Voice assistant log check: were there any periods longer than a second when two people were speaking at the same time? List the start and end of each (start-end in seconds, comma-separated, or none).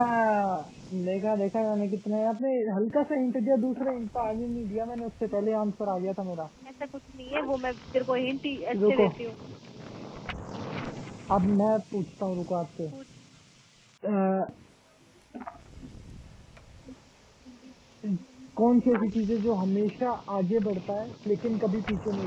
none